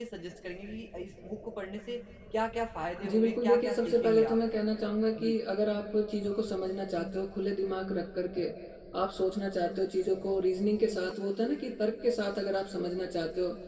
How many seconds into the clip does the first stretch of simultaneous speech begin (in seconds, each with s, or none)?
3.0 s